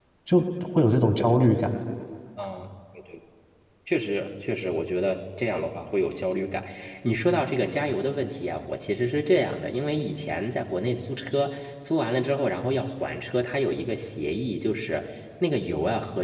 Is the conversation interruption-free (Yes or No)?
Yes